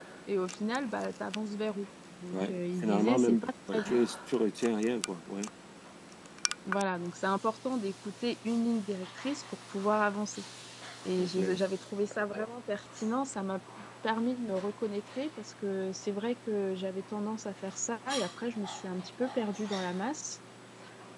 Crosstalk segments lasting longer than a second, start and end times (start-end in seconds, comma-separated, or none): 2.3-4.0